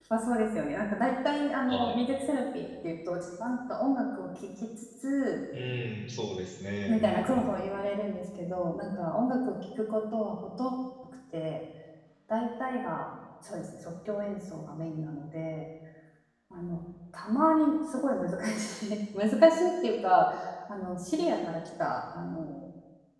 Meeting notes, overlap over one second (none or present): none